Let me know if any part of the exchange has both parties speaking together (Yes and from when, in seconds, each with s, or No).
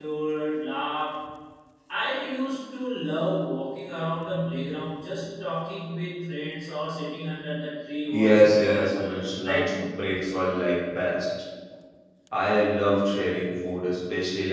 Yes, from 8.1 s